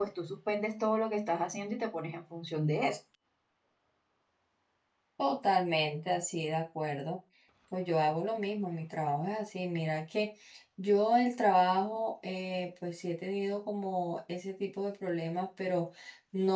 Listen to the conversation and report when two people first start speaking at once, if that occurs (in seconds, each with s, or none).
none